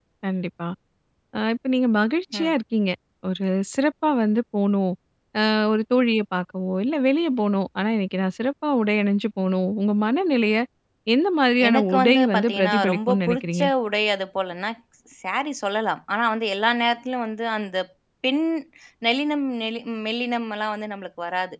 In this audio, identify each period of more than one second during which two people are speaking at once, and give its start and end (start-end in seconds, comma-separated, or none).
11.7-13.7